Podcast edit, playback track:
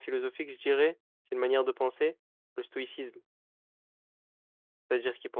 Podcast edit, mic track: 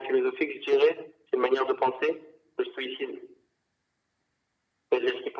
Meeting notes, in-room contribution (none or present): none